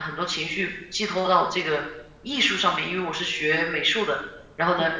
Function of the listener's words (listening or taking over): listening